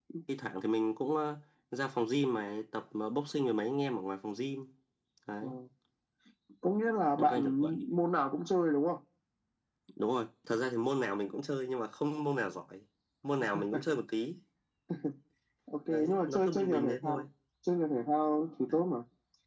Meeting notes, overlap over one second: present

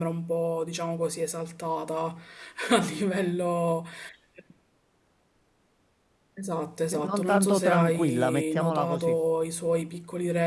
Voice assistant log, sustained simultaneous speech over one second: present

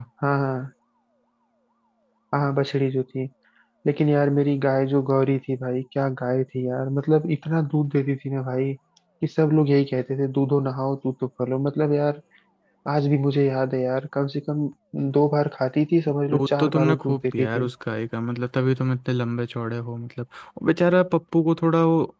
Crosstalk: present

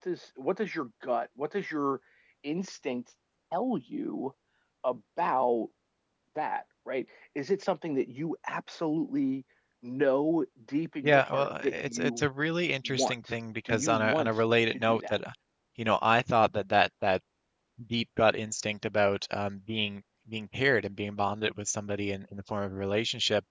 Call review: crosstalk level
present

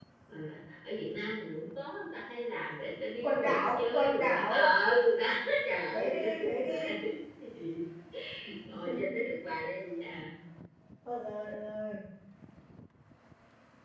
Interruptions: present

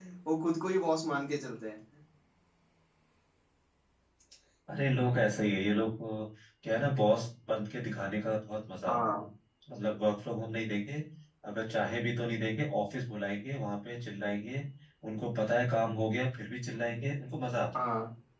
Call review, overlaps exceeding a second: none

